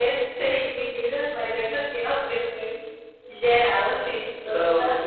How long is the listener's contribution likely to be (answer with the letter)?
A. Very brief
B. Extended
B